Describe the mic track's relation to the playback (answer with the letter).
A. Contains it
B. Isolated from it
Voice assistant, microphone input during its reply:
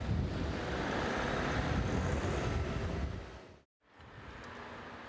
B